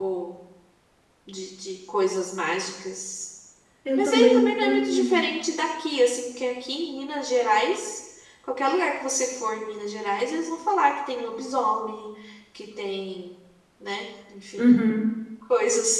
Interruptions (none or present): present